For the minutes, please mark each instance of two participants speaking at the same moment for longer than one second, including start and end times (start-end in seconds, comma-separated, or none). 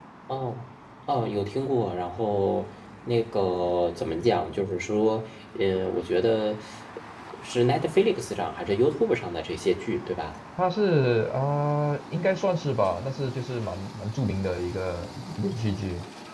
none